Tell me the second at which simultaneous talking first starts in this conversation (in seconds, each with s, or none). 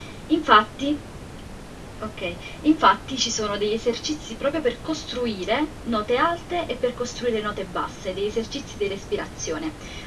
none